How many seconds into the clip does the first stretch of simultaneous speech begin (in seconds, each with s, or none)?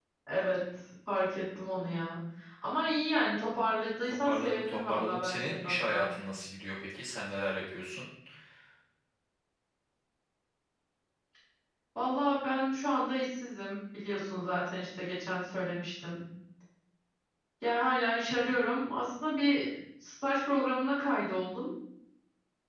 4.0 s